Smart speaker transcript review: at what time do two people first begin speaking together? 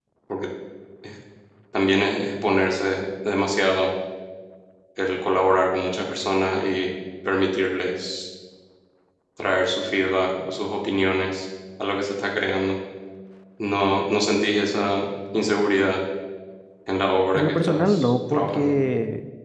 17.3 s

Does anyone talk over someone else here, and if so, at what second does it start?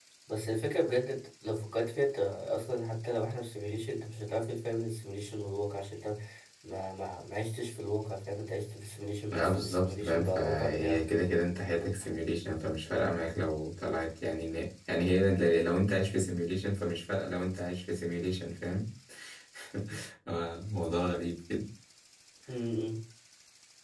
9.3 s

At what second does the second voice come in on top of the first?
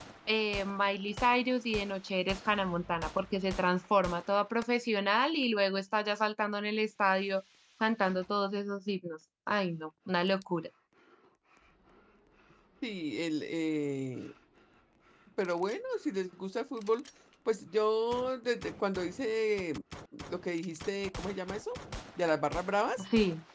none

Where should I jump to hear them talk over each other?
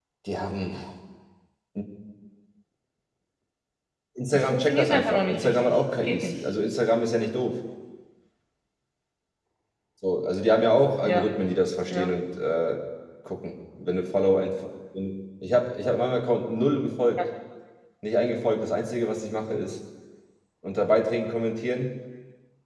4.3 s

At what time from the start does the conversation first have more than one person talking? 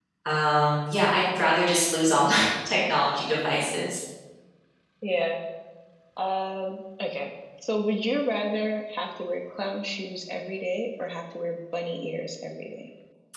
none

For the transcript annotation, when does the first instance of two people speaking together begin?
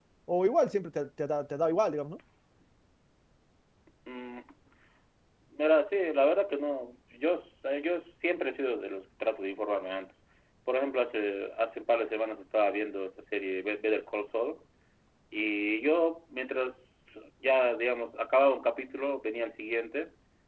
none

